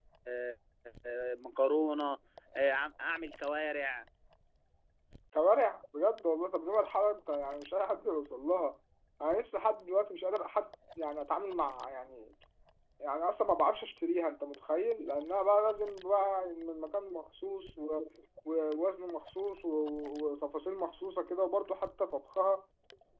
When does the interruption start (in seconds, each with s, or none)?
none